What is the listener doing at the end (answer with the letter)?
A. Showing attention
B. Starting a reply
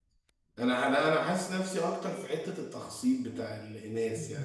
A